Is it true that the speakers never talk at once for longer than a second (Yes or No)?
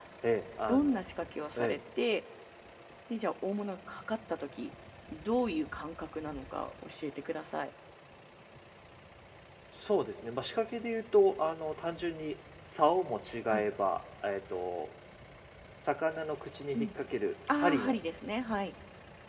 Yes